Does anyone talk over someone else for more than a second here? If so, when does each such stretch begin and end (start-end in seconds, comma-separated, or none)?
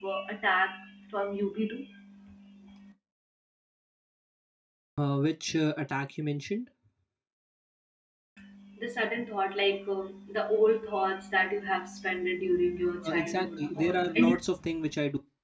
13.0-14.3